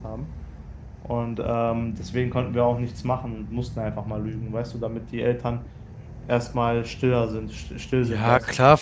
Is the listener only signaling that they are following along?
No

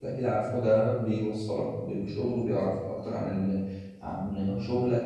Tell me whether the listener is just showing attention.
Yes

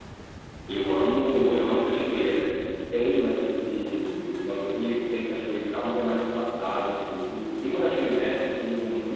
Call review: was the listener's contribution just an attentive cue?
Yes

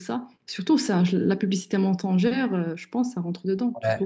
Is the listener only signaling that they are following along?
No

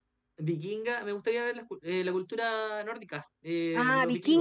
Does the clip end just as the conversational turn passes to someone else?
Yes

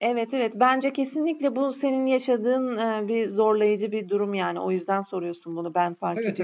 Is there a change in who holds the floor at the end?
Yes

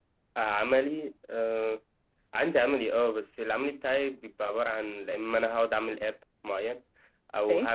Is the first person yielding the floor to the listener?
No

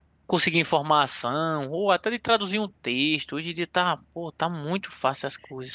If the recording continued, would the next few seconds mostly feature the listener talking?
Yes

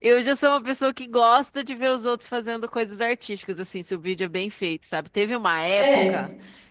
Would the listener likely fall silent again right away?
Yes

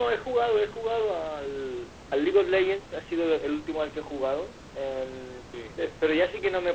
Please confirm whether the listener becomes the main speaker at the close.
No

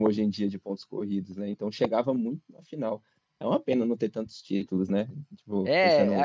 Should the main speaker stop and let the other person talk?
Yes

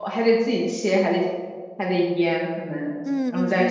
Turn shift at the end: Yes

